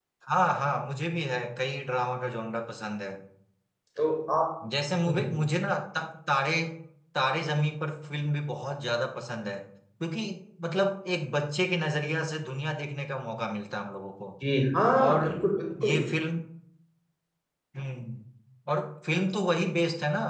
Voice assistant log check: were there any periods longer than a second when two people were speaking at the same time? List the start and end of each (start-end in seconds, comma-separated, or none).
none